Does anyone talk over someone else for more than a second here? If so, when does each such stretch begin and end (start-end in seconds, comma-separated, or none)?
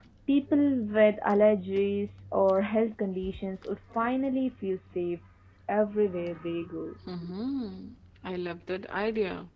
none